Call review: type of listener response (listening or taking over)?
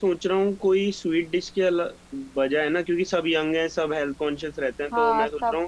listening